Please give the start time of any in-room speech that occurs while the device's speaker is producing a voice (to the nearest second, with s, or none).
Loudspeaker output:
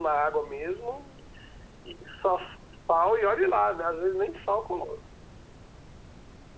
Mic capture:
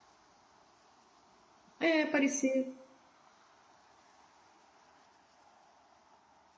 2 s